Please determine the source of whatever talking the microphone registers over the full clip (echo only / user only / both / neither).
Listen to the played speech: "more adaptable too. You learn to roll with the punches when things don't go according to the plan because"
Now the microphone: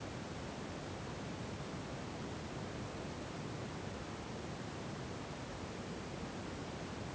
neither